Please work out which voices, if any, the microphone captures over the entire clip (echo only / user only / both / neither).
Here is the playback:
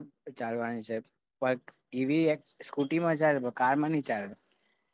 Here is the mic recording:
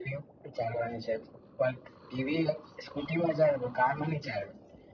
echo only